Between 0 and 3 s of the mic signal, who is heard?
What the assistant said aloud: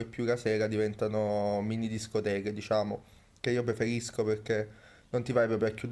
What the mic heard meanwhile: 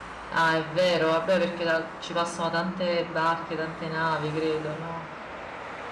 user only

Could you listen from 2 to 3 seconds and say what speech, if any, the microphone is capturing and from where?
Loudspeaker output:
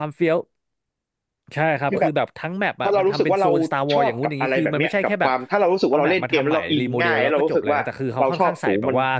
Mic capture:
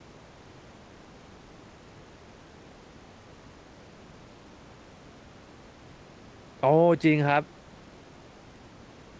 neither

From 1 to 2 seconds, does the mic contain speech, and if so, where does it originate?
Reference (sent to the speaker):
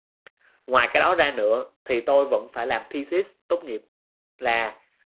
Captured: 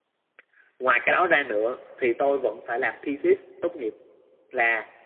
echo only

